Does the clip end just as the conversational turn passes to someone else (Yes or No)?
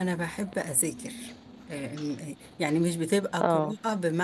No